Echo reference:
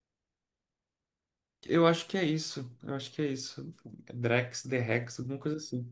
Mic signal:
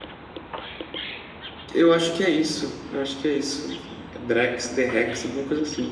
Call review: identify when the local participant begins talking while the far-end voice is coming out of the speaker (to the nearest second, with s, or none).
none